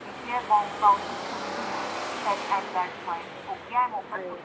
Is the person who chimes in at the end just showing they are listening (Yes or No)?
Yes